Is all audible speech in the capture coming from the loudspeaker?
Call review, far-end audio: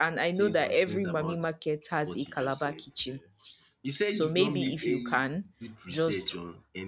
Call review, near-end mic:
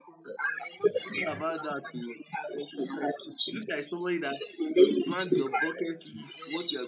No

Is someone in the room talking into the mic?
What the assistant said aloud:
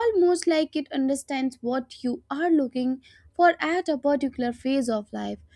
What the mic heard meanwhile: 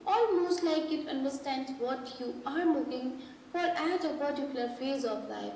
No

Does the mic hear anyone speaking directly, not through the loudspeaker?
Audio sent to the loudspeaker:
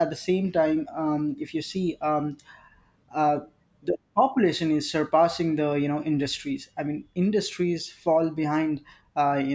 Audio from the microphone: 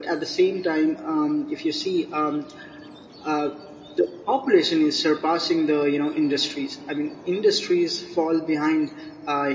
No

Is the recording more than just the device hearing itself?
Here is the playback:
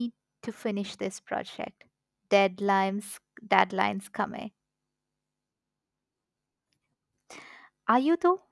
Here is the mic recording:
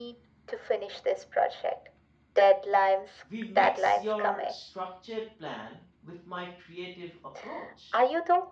Yes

